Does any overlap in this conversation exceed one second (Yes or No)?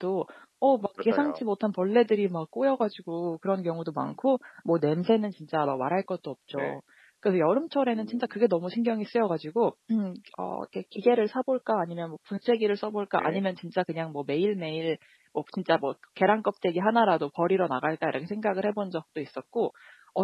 No